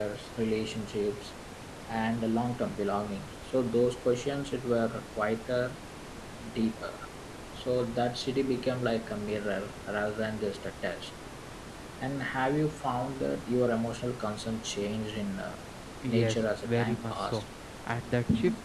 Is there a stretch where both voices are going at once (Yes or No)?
Yes